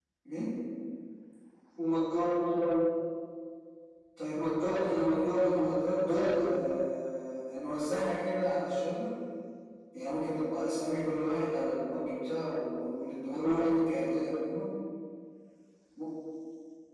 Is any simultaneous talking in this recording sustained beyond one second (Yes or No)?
Yes